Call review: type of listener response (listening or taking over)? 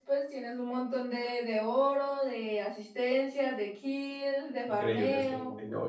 taking over